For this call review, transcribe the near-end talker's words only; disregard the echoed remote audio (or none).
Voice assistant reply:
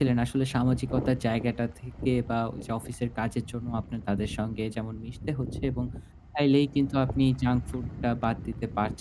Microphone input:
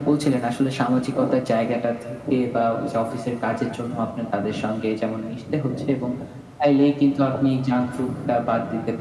none